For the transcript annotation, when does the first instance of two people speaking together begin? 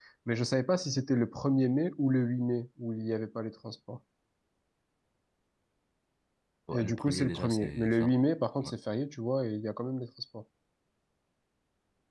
7 s

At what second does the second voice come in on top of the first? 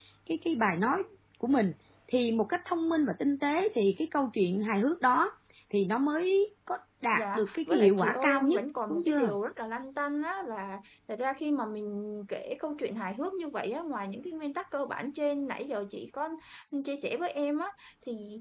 7 s

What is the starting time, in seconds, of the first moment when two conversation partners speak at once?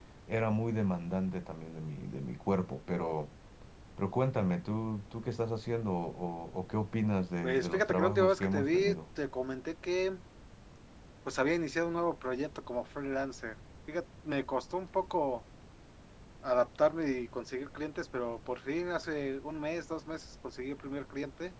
7 s

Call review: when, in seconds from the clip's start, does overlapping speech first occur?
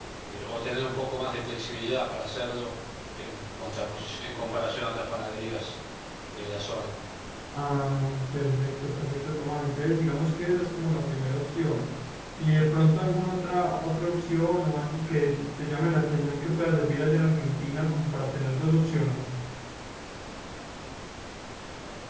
none

